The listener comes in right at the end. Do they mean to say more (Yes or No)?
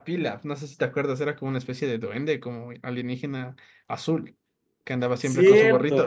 Yes